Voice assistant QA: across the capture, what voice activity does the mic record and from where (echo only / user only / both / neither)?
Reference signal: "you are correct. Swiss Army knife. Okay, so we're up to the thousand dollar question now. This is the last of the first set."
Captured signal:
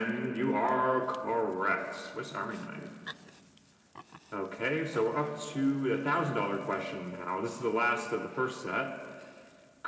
echo only